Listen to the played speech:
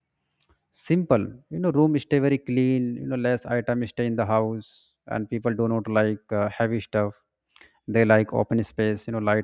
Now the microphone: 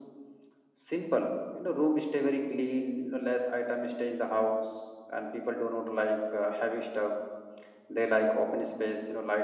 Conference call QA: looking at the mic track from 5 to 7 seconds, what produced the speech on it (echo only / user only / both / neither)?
echo only